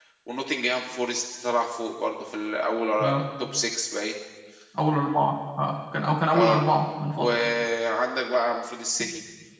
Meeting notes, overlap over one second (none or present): none